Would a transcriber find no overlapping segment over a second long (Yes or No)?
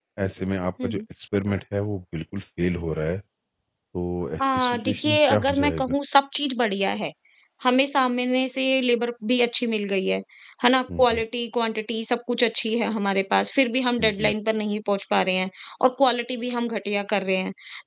No